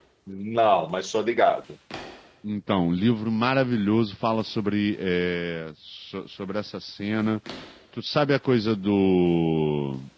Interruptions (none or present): none